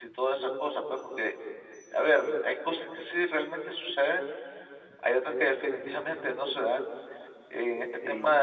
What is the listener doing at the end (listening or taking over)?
listening